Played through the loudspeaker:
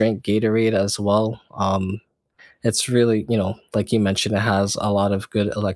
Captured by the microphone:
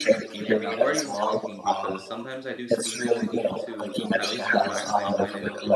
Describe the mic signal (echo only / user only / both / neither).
both